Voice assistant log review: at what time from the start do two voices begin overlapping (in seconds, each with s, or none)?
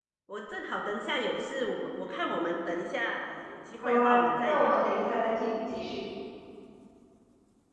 3.8 s